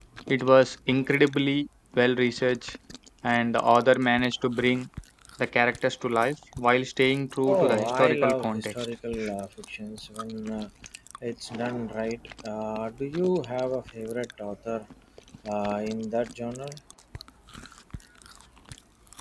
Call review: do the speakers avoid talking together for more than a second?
No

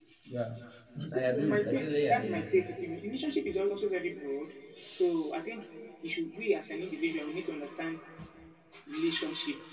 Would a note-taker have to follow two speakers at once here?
Yes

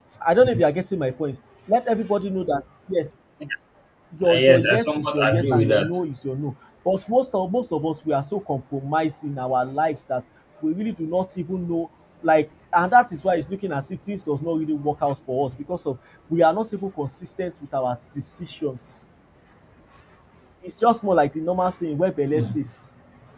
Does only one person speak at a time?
No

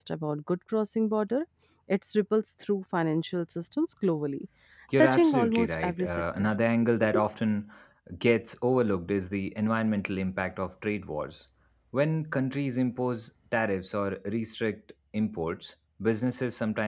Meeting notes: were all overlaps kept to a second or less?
No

